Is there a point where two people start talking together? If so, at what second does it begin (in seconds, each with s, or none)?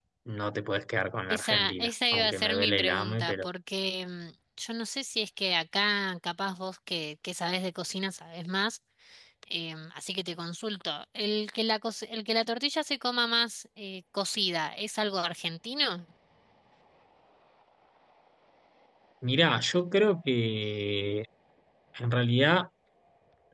1.3 s